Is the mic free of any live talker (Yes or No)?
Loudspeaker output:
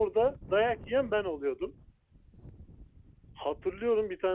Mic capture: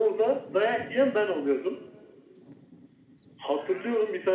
Yes